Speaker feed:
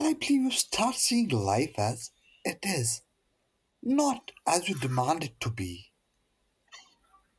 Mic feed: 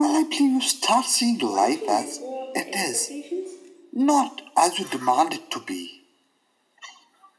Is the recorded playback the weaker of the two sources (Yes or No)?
No